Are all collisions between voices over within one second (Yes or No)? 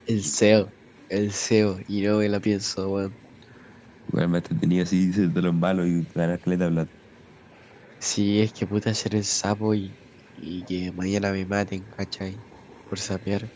Yes